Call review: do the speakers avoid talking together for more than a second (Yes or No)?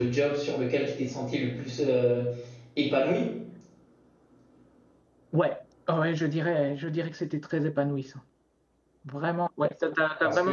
Yes